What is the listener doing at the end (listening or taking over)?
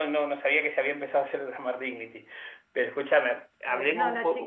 taking over